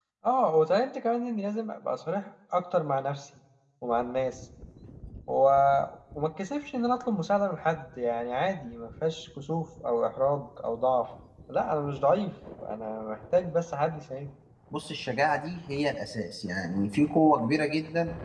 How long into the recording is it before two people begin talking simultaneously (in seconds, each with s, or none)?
none